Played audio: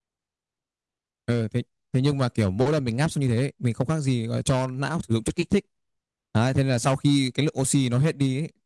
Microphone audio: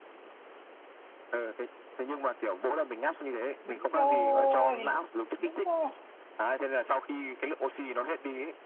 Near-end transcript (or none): đúng rồi đúng rồi